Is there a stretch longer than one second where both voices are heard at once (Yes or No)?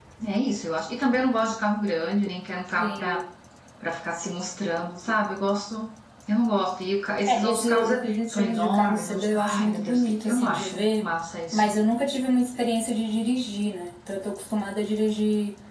Yes